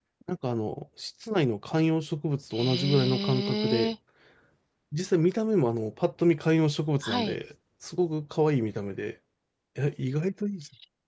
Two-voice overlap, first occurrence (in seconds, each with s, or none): 2.5 s